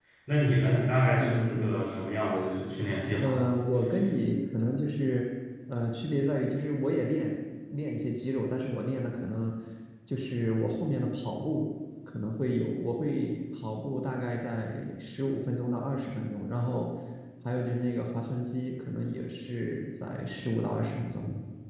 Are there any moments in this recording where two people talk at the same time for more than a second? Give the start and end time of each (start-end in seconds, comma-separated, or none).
none